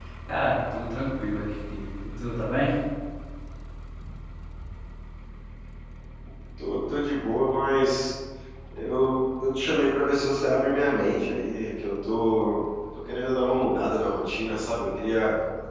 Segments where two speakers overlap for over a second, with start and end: none

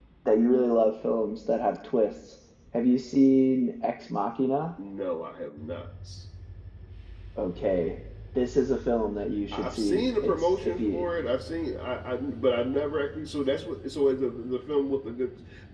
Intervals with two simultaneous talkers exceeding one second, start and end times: 9.5-11.0

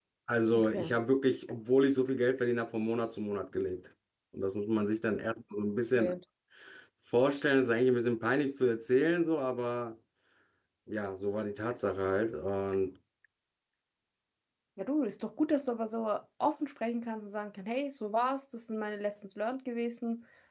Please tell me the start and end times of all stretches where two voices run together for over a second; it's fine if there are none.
none

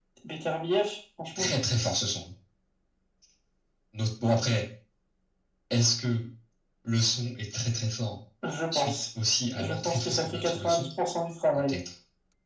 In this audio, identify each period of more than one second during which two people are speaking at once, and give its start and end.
9.6-10.9

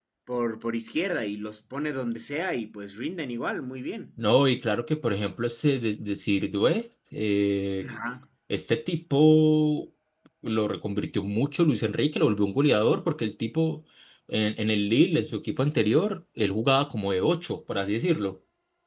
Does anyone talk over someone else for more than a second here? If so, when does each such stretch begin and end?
none

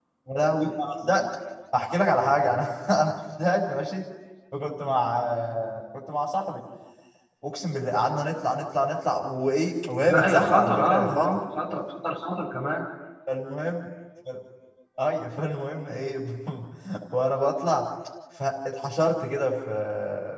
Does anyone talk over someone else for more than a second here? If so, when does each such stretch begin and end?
10.1-11.4

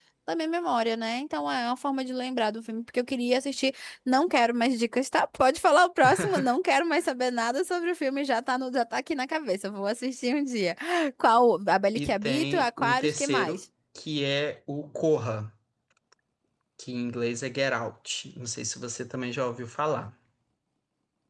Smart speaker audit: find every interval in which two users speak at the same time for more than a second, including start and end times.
12.0-13.6

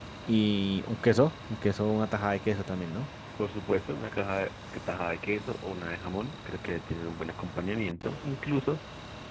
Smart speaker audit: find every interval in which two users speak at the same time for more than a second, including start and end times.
none

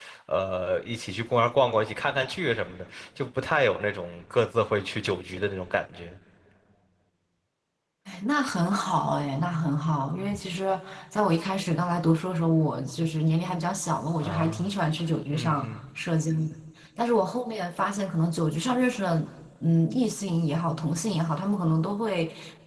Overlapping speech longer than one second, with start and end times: none

